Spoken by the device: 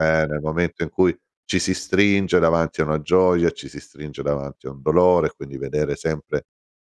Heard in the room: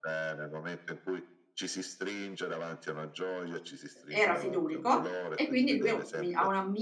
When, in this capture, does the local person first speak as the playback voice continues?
4.1 s

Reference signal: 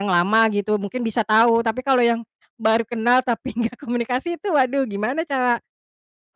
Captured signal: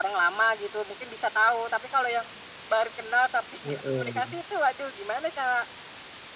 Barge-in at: 3.6 s

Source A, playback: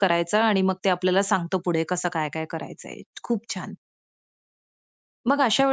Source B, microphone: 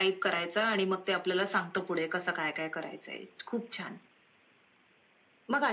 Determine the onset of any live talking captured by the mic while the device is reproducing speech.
none

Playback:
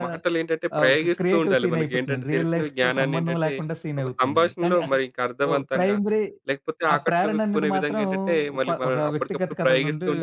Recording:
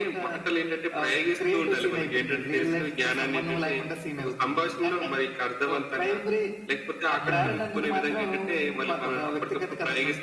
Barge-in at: 7.2 s

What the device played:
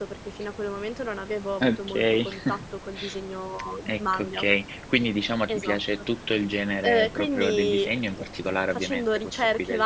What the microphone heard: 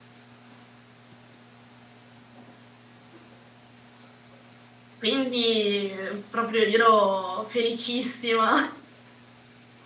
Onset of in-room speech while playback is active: 5.0 s

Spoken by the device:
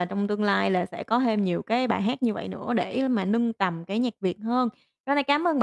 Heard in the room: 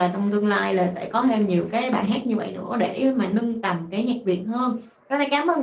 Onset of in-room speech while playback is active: none

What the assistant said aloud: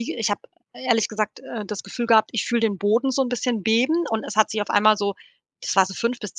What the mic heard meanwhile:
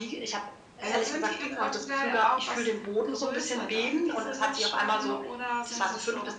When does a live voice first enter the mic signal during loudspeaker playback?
0.8 s

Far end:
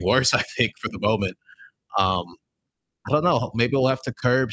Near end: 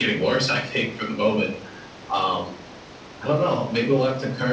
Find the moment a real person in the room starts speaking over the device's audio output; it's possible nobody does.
none

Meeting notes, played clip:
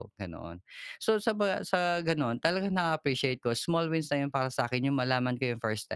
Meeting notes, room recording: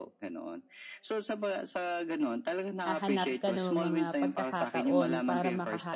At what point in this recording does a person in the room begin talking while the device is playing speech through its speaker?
2.8 s

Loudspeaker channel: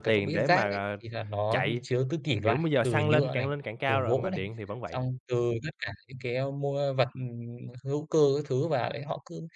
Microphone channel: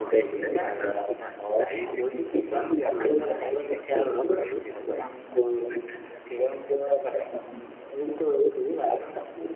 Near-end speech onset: none

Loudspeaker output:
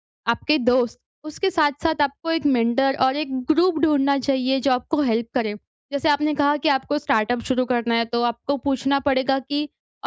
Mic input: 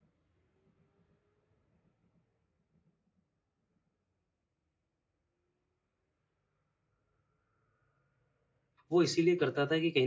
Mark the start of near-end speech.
8.9 s

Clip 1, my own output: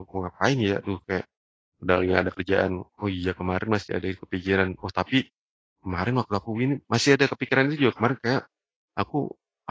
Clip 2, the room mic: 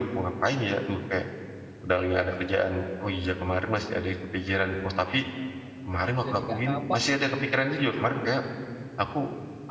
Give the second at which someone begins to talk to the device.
6.2 s

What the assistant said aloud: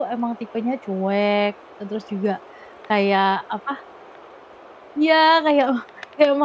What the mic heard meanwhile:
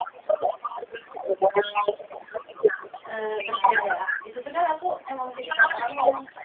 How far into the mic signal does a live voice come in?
3.1 s

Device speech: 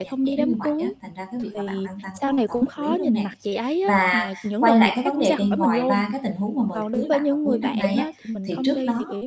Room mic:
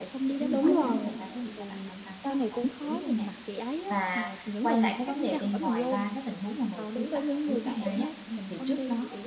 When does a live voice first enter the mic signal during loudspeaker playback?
0.5 s

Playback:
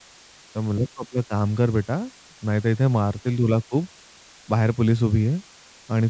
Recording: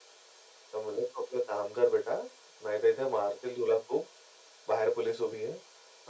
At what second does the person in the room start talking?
none

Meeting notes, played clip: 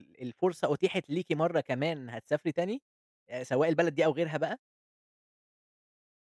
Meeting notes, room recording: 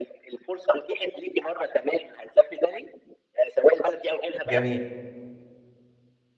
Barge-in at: 4.5 s

